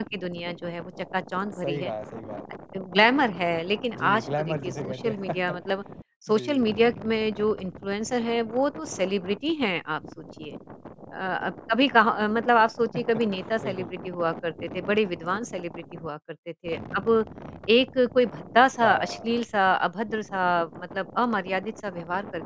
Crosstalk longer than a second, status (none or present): present